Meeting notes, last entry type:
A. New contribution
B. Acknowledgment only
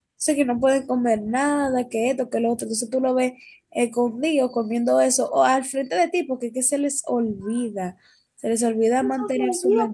A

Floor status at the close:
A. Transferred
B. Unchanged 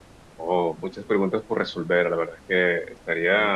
B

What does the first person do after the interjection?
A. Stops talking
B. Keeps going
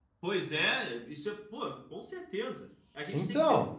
B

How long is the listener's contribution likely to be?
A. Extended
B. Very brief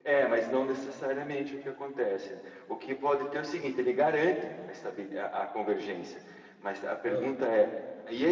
B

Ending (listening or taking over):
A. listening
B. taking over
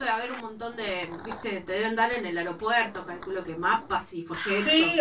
B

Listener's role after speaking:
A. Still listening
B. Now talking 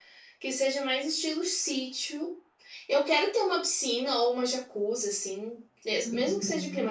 A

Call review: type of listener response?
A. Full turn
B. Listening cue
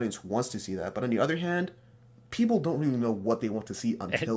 A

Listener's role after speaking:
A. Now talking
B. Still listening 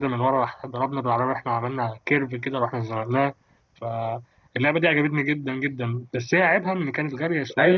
A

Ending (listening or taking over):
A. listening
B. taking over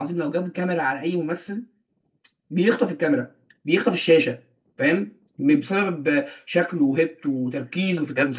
B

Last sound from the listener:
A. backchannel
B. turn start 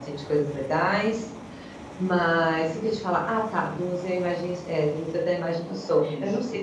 A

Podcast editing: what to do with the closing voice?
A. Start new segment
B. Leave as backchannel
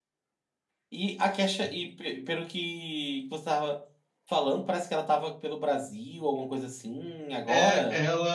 A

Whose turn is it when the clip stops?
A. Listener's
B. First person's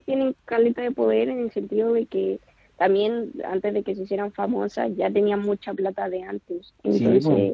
A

